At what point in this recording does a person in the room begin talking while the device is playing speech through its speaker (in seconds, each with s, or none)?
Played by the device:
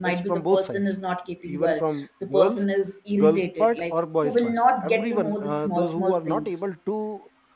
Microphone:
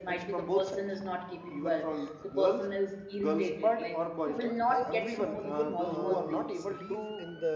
4.4 s